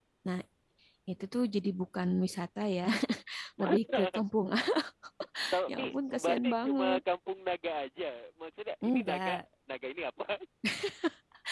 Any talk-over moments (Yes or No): Yes